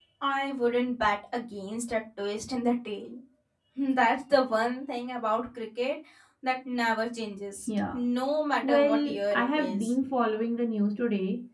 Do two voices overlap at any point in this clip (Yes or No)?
Yes